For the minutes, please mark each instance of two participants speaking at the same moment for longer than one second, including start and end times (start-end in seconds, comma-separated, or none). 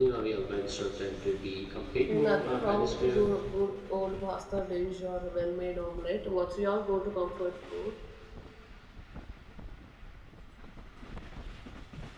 2.1-3.4